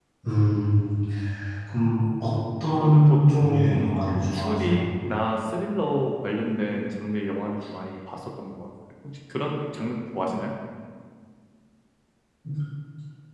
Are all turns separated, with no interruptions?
No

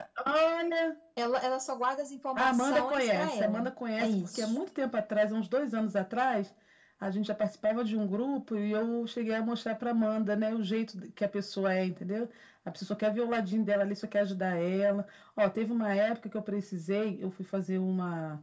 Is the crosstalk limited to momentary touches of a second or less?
No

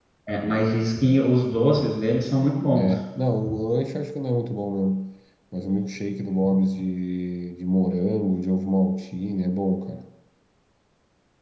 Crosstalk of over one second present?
No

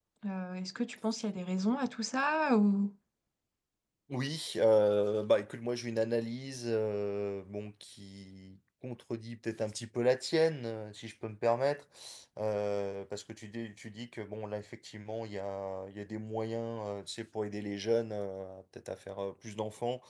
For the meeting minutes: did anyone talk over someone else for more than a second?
No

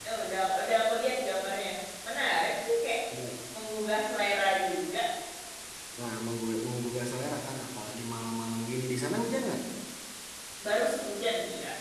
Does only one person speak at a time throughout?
Yes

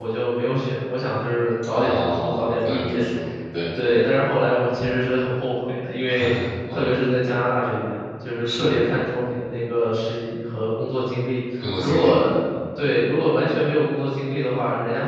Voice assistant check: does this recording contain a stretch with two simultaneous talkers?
Yes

